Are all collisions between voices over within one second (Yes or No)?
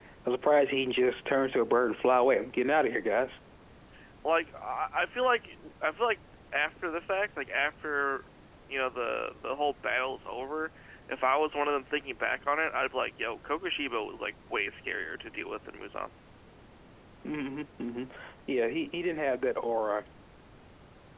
Yes